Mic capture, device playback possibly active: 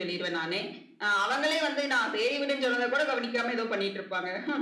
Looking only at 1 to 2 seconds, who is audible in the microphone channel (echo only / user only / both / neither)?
echo only